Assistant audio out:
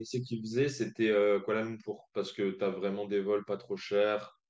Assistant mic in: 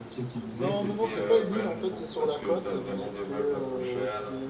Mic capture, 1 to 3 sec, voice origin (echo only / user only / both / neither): both